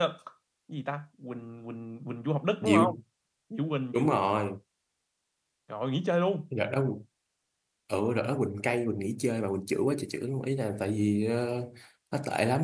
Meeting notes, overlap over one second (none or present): none